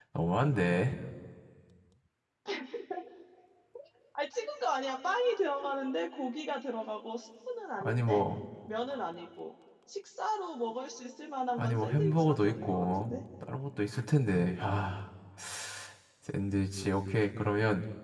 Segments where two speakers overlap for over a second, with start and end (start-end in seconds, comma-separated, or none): 11.6-13.1